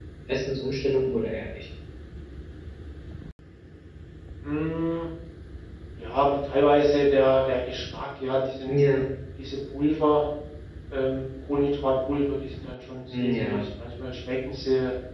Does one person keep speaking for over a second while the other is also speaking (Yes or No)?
No